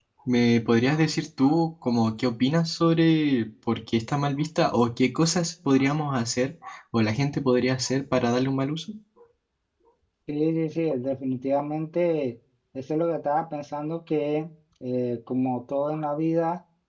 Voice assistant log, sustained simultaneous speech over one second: none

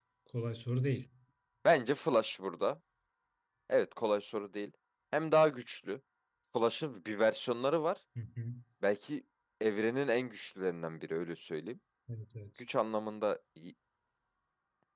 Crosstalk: none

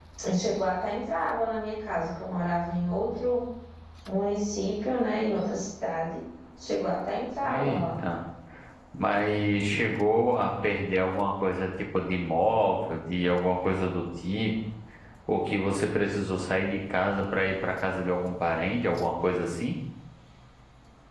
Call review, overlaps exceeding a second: none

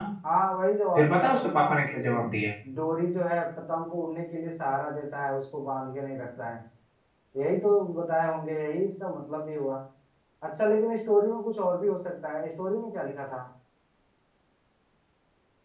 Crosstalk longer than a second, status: present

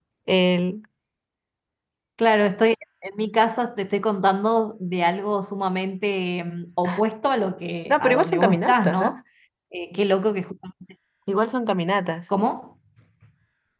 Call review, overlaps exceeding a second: present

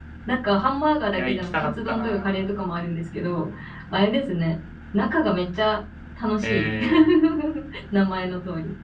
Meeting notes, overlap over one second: present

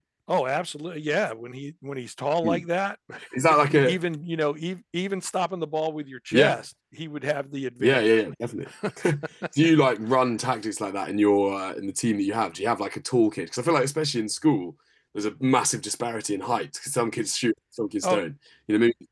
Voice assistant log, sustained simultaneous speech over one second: none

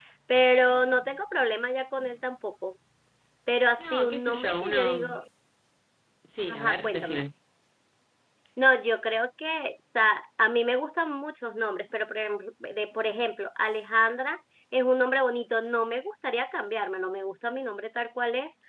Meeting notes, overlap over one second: present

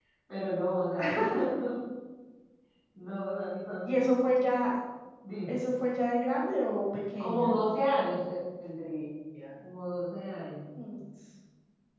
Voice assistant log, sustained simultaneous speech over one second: none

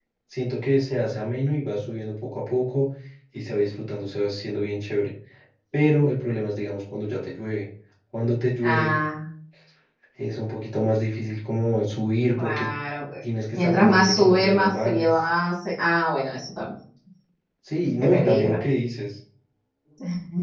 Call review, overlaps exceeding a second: present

